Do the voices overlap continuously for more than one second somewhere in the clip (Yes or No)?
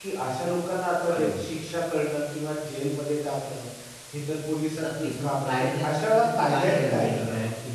Yes